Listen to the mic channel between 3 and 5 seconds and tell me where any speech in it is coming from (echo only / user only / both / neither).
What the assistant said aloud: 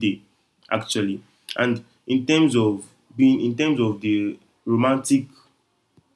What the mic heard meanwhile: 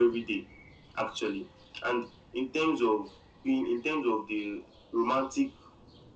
echo only